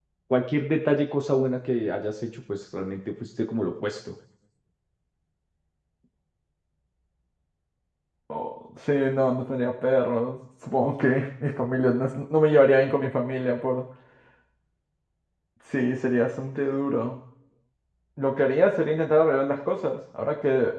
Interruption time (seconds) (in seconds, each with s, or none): none